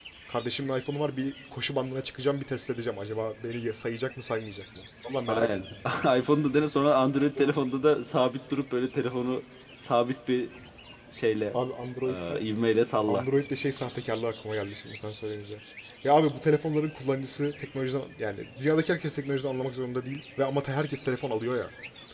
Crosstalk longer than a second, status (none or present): none